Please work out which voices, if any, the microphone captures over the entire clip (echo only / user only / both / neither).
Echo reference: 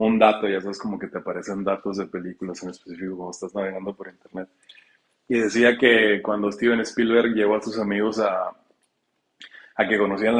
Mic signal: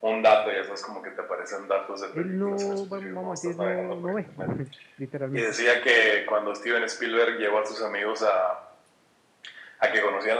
both